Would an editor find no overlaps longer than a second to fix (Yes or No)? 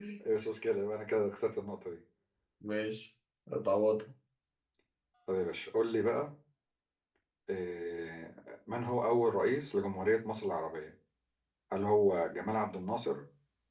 Yes